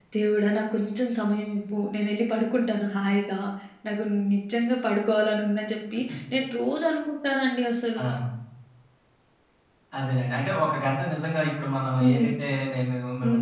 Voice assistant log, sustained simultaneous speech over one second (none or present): none